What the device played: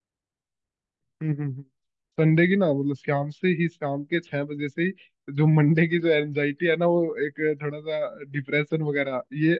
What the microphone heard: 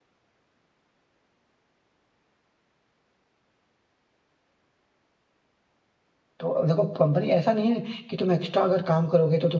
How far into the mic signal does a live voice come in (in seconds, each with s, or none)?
6.4 s